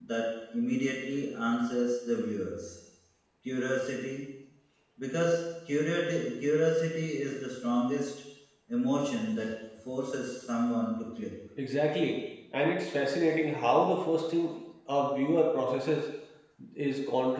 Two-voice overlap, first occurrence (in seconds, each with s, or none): none